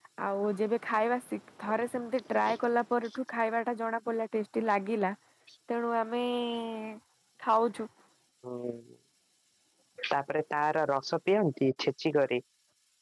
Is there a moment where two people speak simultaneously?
No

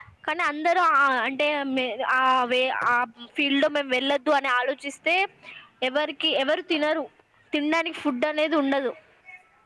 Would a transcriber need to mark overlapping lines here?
No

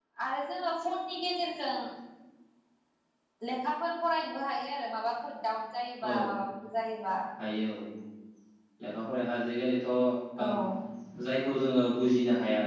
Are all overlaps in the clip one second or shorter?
Yes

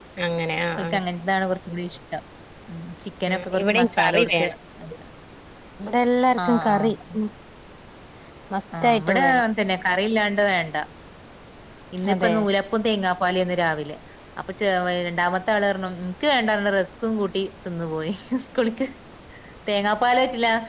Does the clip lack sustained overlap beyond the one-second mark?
No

